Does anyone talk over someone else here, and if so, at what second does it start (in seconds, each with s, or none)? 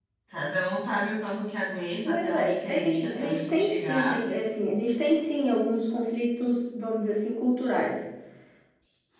2.0 s